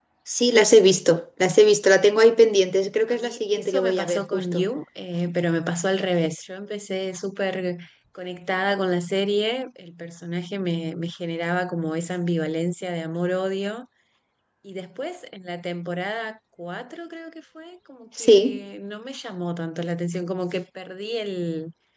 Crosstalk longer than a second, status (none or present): present